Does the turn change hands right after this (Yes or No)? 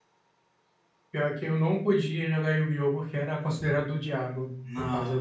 No